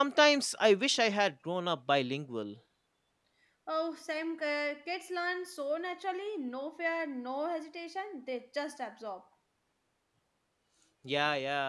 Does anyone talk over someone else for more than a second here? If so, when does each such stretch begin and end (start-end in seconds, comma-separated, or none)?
none